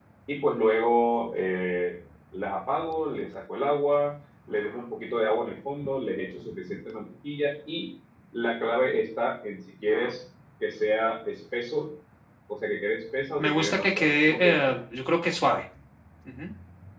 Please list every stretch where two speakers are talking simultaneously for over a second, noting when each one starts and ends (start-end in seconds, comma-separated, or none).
13.4-14.8